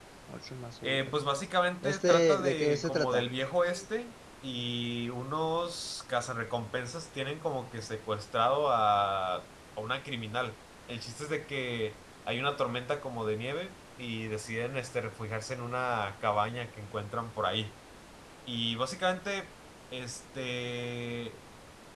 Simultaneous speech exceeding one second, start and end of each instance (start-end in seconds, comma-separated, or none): 1.8-3.2